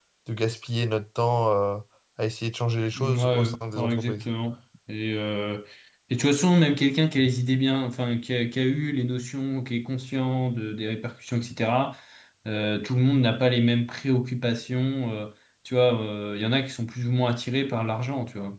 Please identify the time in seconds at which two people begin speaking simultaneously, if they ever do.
3 s

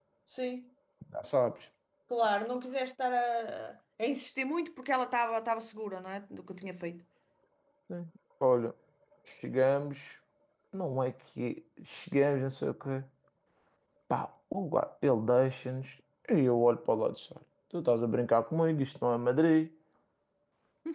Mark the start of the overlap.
none

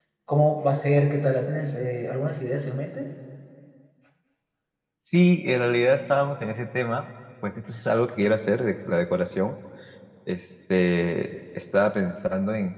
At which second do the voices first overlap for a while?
none

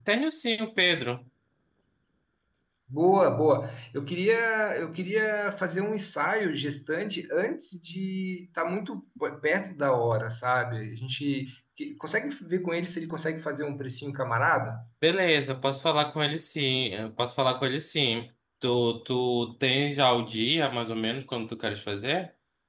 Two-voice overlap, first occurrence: none

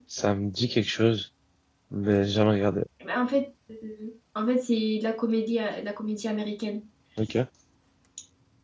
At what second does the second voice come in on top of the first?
none

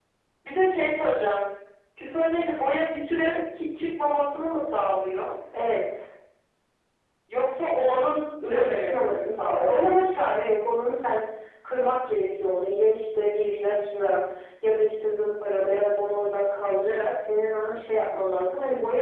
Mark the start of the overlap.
8 s

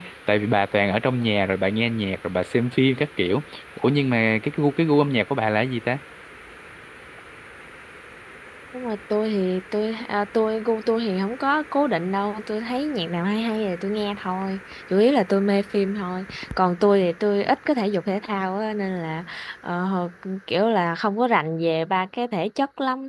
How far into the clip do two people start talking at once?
none

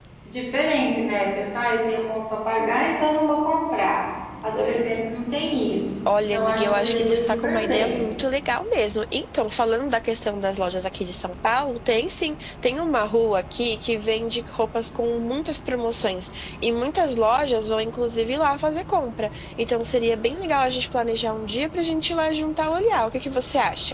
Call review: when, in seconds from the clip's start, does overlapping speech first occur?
6 s

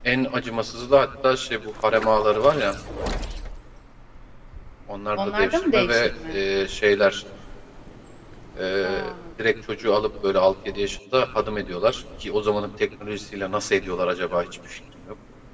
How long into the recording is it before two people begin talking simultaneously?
5 s

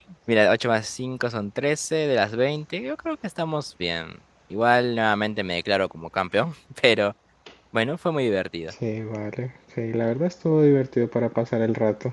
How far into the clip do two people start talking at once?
none

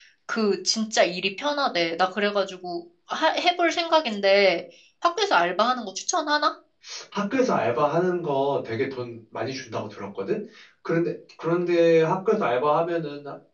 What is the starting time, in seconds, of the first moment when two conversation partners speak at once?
none

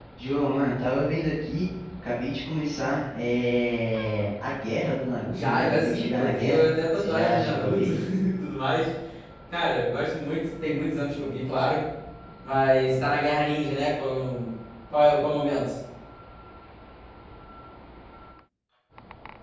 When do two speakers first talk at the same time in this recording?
5 s

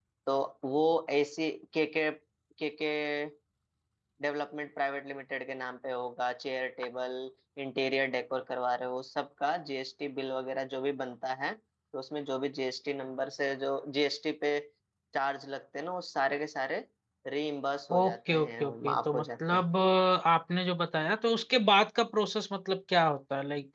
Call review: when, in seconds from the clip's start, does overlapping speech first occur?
18 s

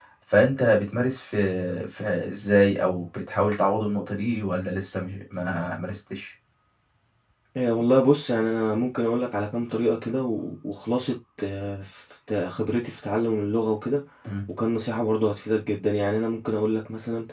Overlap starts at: none

